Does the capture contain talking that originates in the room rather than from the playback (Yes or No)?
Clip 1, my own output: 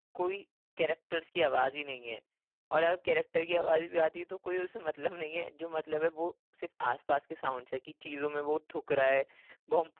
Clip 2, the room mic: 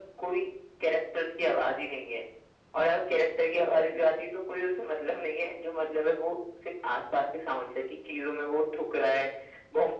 No